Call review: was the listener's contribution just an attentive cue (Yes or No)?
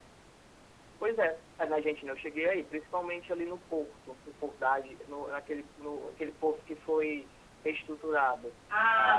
No